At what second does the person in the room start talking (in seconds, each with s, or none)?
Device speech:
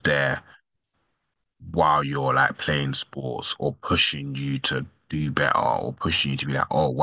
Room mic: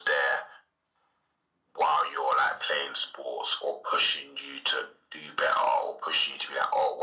none